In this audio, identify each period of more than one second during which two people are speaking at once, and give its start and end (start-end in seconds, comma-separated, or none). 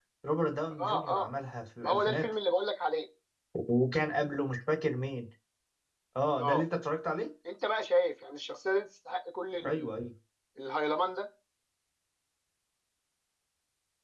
none